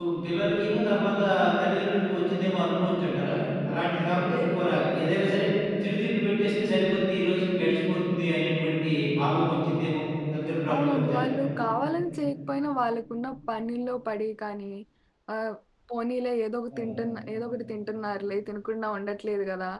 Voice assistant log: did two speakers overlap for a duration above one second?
No

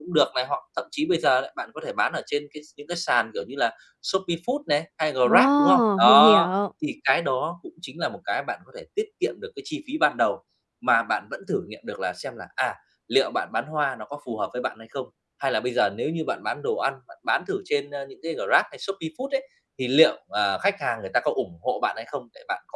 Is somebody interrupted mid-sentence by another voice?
Yes, from 5.2 s

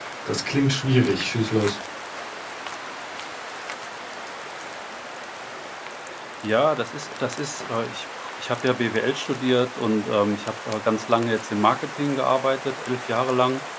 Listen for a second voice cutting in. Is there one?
No

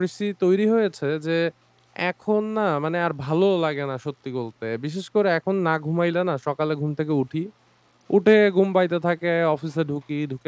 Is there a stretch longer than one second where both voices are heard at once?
No

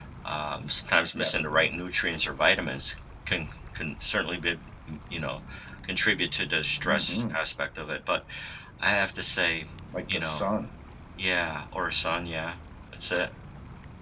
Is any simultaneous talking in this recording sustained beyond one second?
No

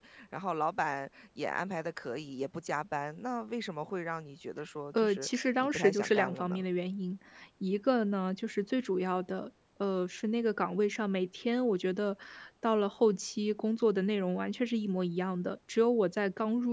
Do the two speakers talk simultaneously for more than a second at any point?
Yes, from 4.9 s

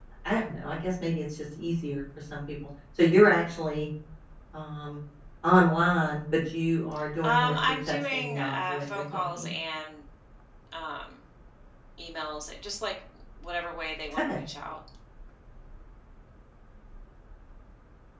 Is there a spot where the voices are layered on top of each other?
Yes, from 7.2 s

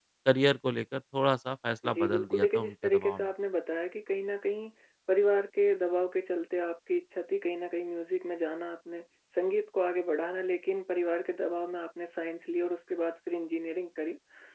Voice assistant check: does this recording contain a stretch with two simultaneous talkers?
Yes, from 1.8 s

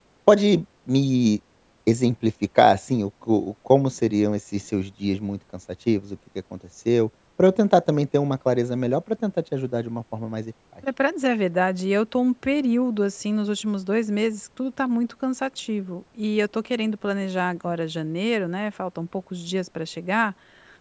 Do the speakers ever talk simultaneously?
No

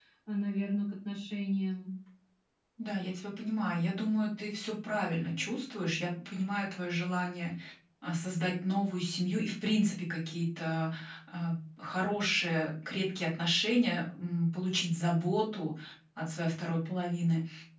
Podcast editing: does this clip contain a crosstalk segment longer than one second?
No

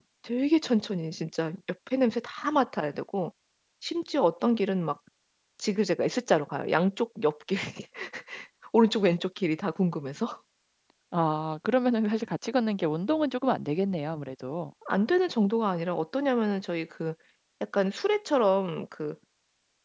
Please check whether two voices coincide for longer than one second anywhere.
No

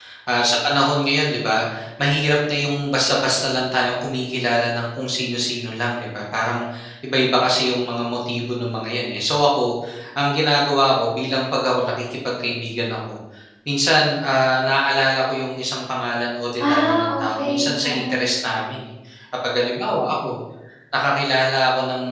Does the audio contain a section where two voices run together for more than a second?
Yes, from 16.6 s

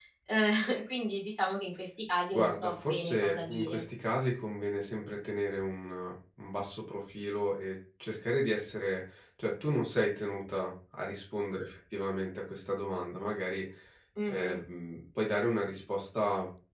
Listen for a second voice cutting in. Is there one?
Yes, from 2.3 s

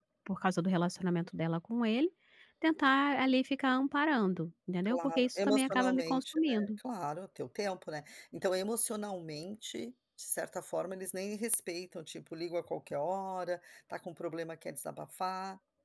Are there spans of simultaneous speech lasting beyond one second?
Yes, from 4.8 s

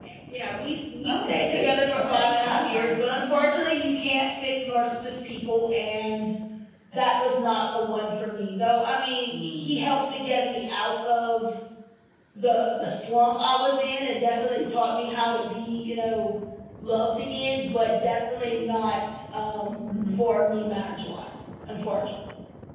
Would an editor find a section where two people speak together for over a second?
Yes, from 1.1 s

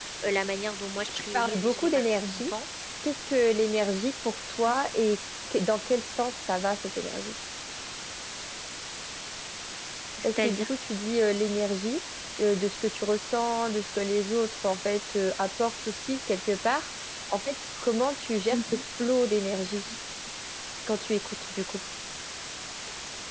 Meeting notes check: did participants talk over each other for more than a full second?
Yes, from 1.1 s

